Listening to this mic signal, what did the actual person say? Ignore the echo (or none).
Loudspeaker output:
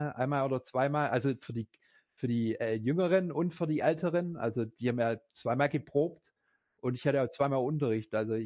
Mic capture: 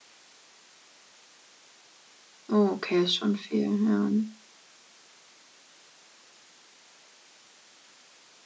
Okay, ist schon viel, ja.